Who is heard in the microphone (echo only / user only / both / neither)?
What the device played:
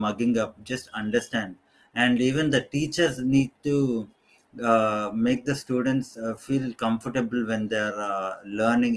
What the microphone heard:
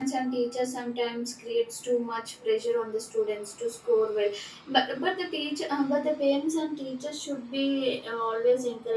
user only